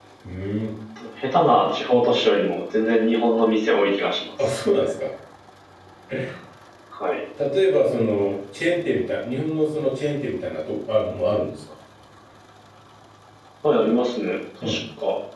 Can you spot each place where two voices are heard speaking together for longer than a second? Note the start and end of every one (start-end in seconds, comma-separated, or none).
none